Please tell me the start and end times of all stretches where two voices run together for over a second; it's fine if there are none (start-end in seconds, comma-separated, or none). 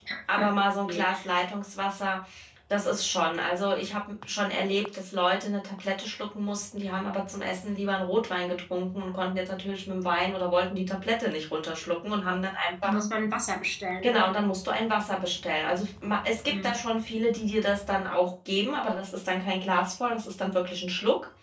none